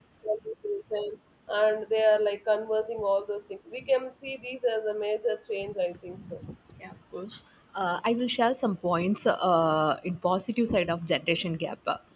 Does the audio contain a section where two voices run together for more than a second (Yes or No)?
No